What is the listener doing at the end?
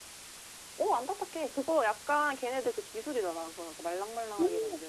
taking over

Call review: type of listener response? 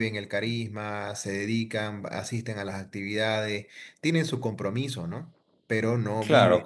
taking over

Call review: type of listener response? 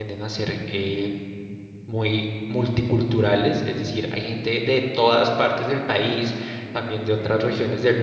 listening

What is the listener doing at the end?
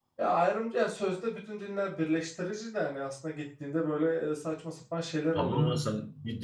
taking over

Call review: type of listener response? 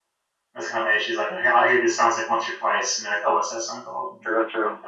taking over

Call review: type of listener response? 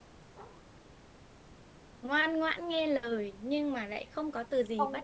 taking over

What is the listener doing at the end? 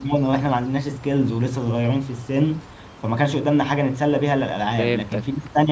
listening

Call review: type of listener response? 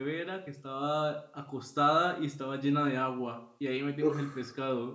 listening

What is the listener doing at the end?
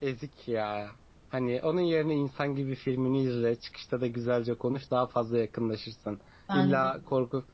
listening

